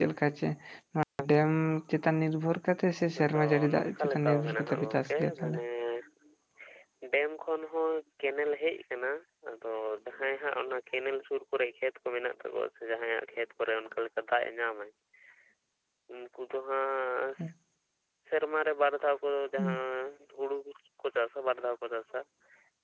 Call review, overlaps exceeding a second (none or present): present